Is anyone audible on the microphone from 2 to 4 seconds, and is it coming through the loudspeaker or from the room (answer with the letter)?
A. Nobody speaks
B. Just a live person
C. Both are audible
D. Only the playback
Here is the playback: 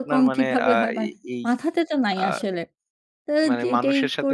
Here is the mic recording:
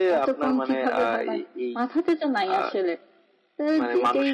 D